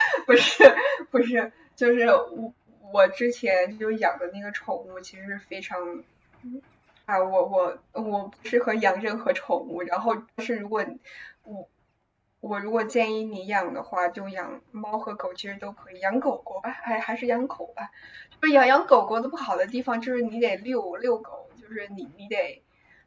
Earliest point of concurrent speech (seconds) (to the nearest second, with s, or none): none